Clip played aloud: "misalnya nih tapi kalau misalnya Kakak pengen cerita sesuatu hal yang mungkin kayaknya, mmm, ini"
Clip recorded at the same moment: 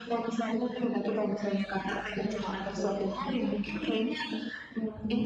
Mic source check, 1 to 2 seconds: echo only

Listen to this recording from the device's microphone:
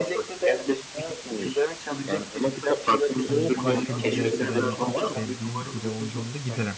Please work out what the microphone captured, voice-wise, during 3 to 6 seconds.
both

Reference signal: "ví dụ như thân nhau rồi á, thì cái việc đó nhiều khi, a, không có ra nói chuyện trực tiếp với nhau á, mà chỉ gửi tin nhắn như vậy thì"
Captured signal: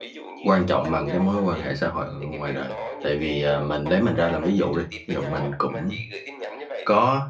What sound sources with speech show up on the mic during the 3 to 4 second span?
both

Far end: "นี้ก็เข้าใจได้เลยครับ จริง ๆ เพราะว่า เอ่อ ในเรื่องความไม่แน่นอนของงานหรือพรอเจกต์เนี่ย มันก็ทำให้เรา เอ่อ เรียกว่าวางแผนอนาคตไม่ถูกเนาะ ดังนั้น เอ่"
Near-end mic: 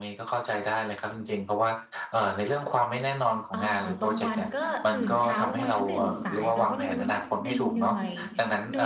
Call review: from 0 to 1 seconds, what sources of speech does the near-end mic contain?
echo only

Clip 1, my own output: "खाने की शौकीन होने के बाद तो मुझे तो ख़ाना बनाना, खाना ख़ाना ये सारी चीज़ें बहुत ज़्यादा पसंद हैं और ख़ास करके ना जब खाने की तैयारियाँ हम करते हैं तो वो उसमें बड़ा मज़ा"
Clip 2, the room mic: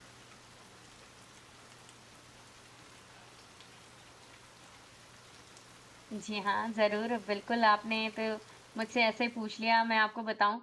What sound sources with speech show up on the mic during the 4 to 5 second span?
neither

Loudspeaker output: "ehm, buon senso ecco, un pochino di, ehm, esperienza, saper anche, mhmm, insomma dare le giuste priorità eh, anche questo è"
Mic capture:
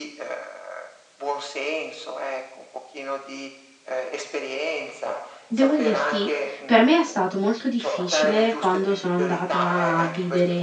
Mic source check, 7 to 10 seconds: both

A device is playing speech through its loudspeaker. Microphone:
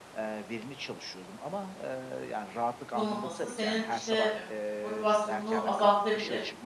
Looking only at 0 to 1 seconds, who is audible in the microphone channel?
echo only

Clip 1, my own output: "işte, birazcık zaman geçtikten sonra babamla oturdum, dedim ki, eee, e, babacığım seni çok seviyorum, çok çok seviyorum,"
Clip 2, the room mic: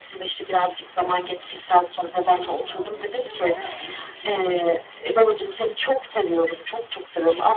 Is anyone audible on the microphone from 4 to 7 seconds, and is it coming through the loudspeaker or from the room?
both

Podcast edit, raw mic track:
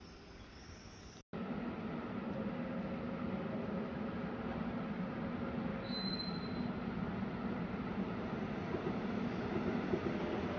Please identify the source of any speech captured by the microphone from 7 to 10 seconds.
neither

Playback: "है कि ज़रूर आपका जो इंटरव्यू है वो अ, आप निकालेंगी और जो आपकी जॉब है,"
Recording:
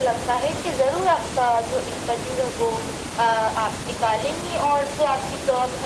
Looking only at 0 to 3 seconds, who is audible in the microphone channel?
echo only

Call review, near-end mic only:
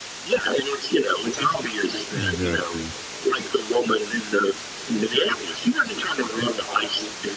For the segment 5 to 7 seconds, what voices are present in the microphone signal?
echo only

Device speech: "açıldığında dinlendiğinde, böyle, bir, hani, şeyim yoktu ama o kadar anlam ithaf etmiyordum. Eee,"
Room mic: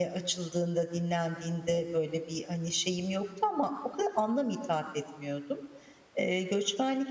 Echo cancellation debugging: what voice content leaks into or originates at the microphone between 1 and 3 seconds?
echo only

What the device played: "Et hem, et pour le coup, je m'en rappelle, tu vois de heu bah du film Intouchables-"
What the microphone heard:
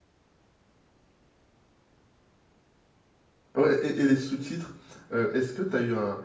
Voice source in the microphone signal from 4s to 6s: user only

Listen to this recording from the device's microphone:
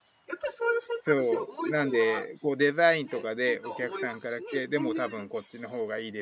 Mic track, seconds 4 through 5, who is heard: both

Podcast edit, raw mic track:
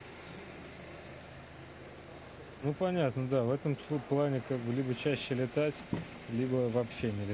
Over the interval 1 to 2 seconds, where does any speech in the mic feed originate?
neither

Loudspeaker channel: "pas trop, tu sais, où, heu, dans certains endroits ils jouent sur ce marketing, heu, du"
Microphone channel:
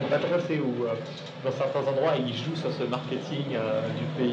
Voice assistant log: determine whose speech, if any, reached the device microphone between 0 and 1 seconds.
echo only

